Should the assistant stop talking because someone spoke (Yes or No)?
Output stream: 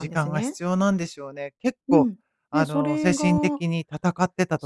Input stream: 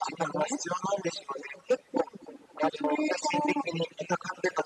No